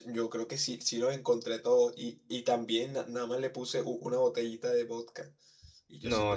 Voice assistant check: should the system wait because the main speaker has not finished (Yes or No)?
No